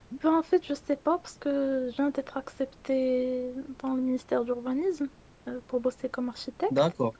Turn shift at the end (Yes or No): No